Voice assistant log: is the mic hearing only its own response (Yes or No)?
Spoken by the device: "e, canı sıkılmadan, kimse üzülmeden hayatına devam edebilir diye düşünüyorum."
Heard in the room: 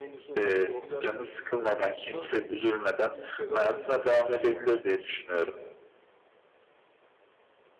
No